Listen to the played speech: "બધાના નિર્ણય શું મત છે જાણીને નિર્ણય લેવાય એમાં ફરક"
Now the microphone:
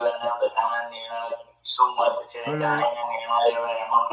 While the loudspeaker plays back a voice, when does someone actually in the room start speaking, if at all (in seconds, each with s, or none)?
2.4 s